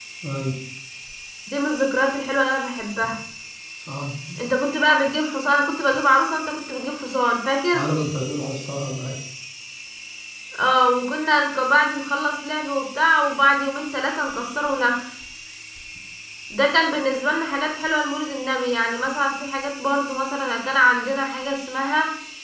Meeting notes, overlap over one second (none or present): none